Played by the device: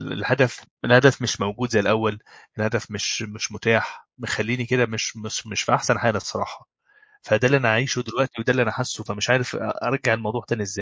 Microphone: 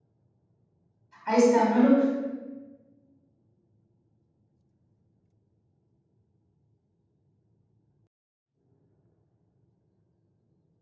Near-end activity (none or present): present